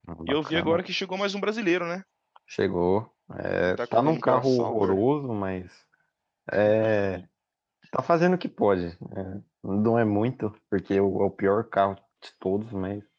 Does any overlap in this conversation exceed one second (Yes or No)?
Yes